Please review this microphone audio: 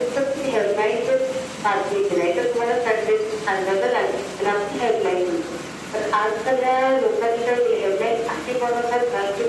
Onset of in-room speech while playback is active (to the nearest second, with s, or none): none